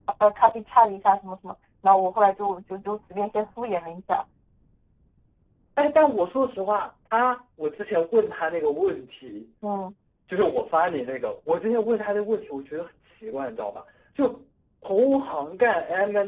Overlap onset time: none

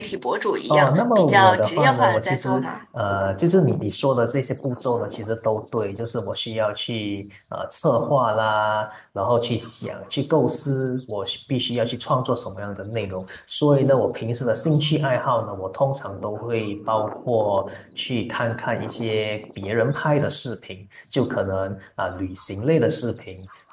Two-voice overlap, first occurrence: 0.7 s

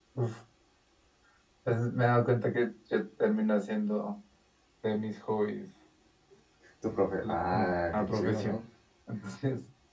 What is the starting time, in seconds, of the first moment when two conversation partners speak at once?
7.3 s

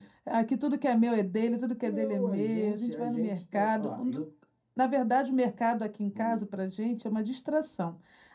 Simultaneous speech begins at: 1.8 s

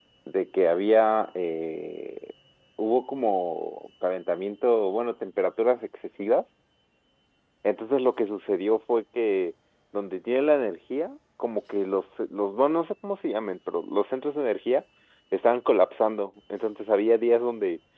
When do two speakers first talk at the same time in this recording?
none

